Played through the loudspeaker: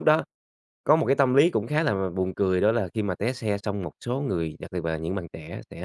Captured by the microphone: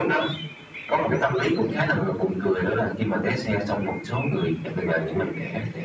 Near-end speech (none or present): none